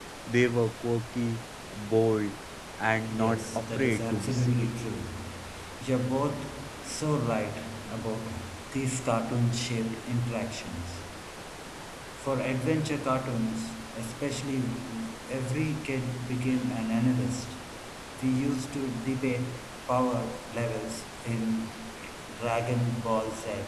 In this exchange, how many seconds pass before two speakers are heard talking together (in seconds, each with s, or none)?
3.1 s